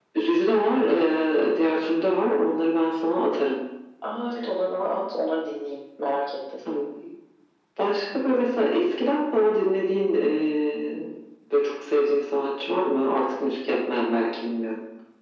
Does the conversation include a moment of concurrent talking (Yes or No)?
No